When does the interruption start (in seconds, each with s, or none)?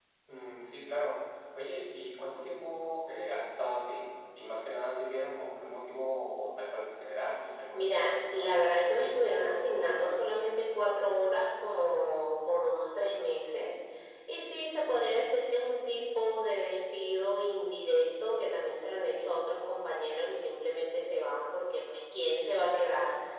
7.7 s